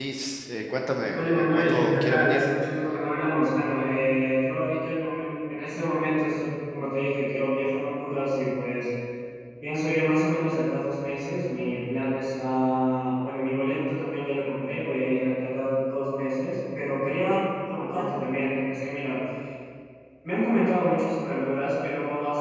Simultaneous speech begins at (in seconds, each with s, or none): 1.1 s